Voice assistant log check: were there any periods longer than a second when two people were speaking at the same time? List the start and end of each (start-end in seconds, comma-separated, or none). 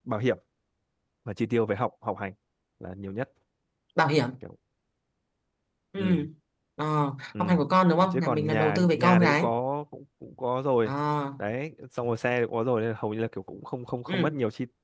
8.1-9.5